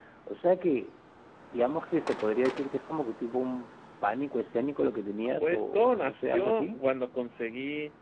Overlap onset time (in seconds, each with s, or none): 5.4 s